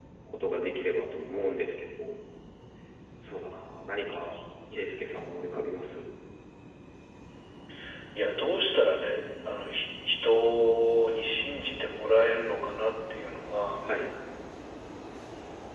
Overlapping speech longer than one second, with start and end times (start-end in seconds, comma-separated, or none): none